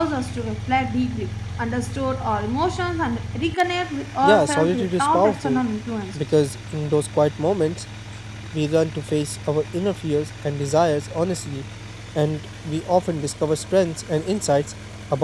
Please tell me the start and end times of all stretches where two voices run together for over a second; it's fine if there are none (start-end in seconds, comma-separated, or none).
4.2-5.6